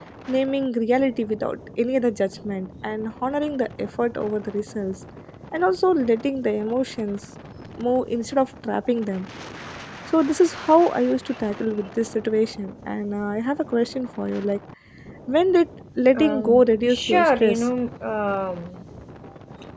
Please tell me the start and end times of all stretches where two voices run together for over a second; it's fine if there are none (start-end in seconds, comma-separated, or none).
16.1-17.7